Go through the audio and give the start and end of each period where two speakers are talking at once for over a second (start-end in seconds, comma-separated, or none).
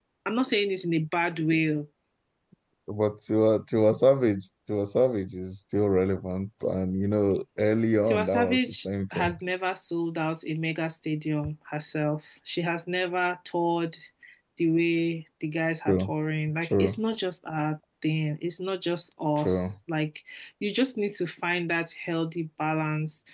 8.1-9.3